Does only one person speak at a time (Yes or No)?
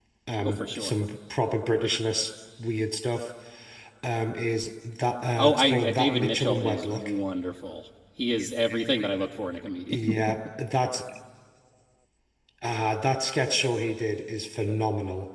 No